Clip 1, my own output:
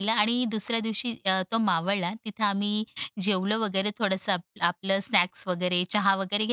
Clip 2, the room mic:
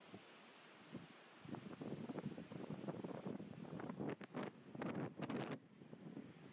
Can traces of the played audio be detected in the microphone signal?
No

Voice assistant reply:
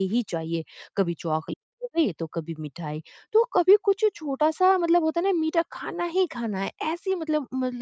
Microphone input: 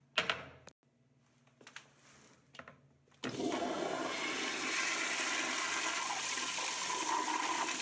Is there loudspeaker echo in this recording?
No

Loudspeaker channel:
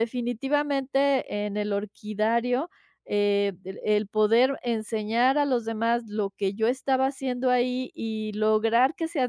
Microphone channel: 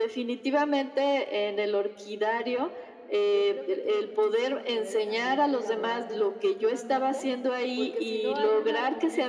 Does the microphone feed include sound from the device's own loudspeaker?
Yes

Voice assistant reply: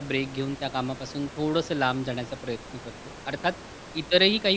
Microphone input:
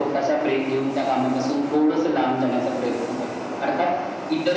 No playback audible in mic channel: No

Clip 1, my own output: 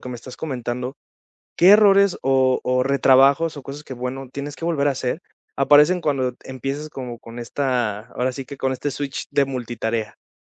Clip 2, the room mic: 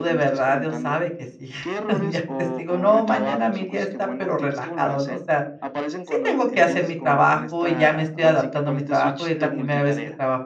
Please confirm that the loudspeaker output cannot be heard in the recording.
No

